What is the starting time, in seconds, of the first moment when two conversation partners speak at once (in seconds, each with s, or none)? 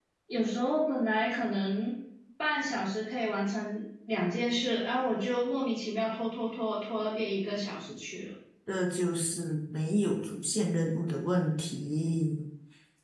none